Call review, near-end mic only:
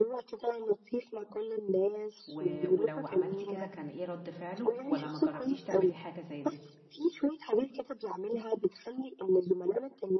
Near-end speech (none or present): present